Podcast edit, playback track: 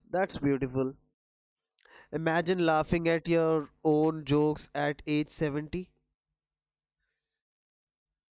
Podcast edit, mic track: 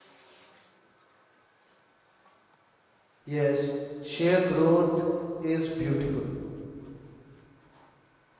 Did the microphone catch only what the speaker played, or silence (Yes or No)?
No